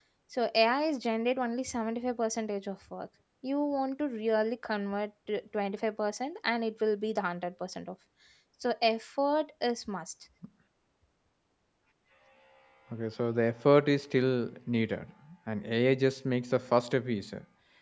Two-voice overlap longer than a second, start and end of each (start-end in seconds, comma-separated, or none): none